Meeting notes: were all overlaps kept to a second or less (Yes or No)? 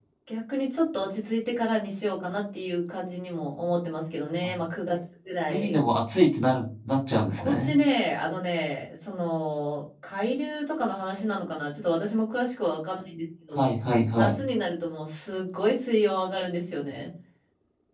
Yes